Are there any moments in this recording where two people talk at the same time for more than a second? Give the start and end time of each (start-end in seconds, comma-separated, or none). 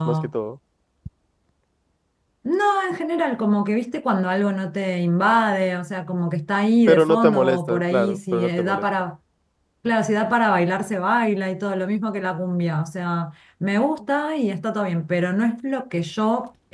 6.9-8.8